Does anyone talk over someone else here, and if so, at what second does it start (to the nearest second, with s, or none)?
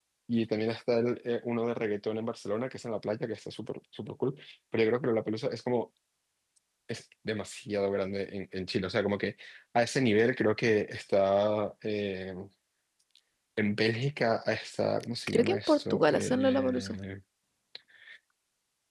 15 s